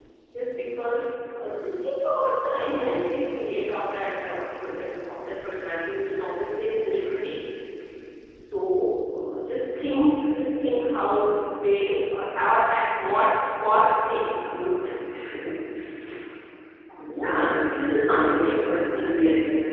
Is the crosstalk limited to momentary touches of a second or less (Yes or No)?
No